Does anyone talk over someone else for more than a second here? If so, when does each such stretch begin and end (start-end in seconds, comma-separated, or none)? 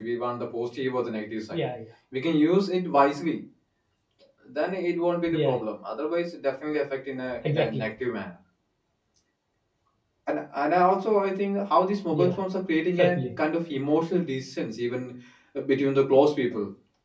none